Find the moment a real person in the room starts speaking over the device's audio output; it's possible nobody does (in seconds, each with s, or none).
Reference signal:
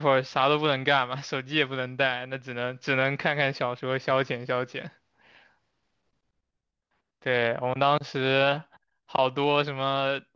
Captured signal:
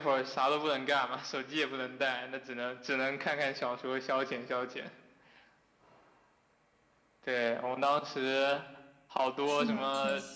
9.4 s